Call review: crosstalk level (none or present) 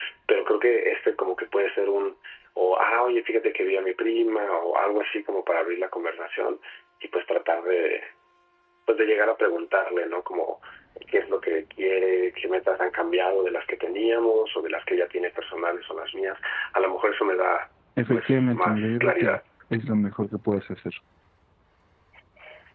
present